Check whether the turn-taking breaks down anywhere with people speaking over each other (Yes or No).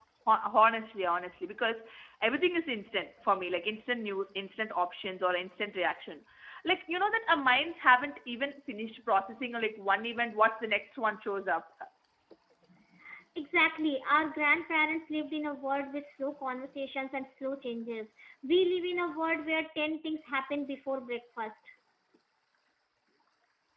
No